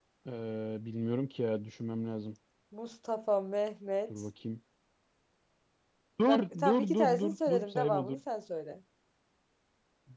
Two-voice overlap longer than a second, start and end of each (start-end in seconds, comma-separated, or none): 6.3-8.2